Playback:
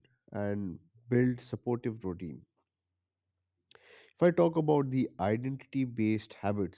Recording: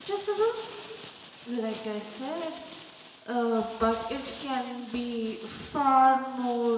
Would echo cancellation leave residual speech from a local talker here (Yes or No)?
Yes